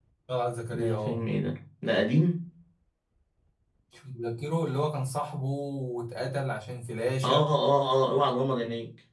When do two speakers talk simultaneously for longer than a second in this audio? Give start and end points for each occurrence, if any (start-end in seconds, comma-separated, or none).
none